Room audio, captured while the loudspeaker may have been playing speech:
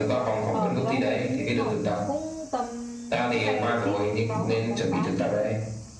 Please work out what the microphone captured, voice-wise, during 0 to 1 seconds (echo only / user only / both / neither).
both